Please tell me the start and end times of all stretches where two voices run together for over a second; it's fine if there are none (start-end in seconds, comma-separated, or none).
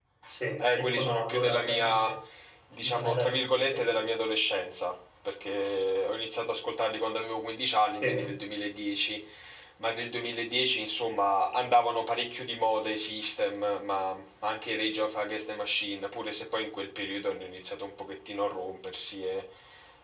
0.6-2.1, 2.8-4.0